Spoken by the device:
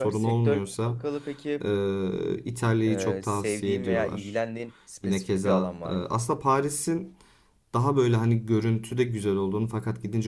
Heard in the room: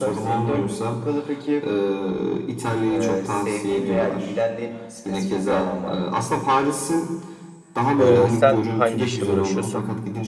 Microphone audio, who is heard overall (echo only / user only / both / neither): both